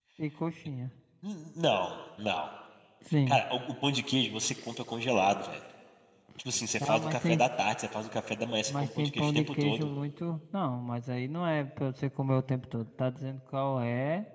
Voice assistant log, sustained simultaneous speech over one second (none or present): present